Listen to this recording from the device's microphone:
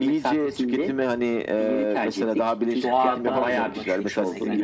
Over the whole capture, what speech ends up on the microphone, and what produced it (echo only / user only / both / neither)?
both